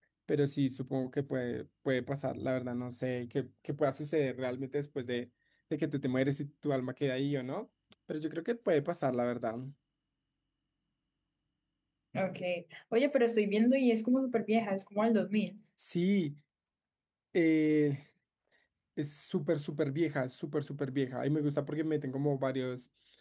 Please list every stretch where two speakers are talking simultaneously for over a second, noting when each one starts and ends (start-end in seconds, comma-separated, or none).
none